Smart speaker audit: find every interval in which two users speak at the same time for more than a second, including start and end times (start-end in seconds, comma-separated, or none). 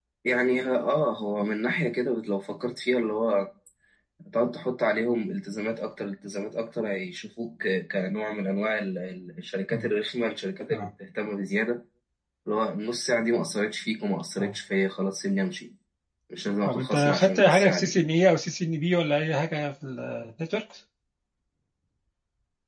16.6-17.9